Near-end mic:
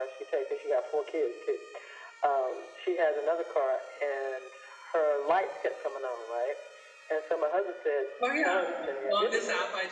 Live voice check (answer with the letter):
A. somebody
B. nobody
A